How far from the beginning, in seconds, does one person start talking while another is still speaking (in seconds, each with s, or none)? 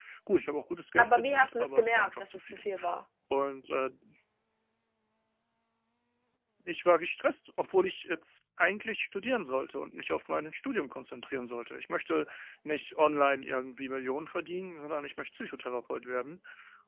1.0 s